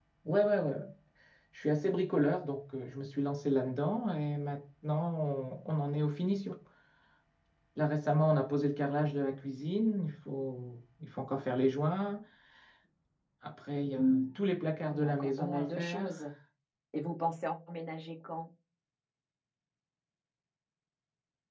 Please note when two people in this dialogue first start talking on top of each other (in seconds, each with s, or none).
14.9 s